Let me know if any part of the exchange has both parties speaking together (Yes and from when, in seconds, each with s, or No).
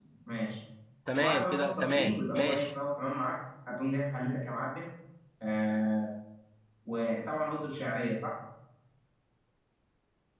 Yes, from 1.2 s